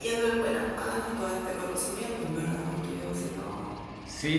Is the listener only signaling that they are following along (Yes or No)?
No